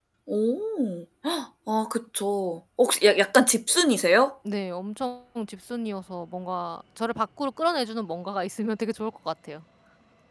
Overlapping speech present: No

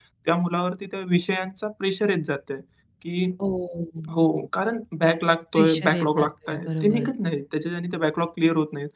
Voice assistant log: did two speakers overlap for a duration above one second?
Yes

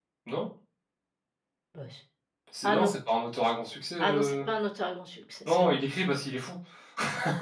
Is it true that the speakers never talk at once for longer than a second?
Yes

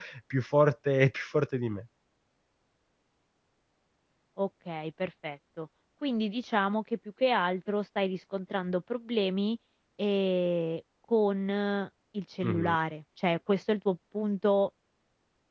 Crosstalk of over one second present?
No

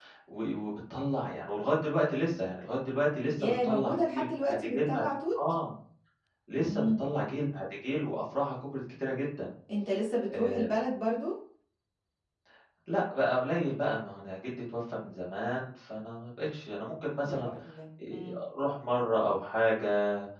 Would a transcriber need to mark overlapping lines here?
Yes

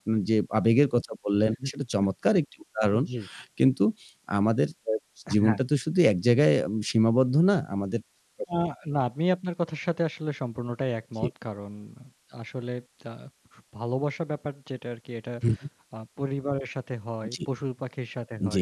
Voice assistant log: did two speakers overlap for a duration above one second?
No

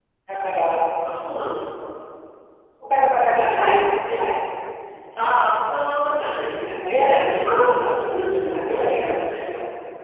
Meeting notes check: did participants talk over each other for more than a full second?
Yes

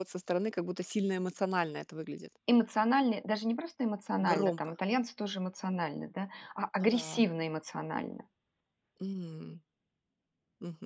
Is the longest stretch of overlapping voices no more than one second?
Yes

